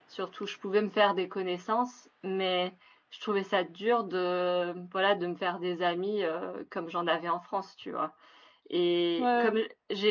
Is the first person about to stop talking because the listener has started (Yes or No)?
No